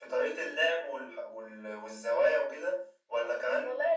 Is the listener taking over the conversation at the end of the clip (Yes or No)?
Yes